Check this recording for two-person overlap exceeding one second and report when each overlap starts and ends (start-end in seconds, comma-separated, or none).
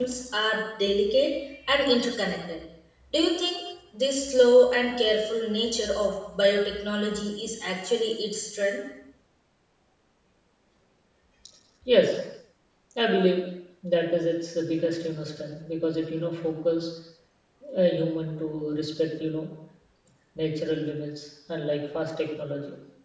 none